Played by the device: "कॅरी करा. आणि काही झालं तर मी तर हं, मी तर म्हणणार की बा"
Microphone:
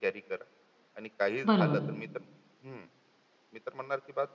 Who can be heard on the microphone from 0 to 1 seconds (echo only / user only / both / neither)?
echo only